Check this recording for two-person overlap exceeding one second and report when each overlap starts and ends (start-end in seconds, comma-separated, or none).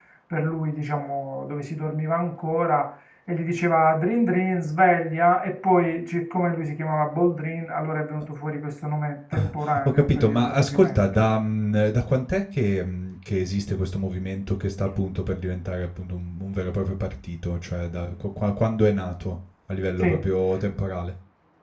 9.8-11.2